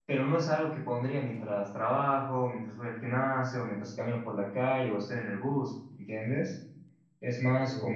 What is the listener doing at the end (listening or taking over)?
listening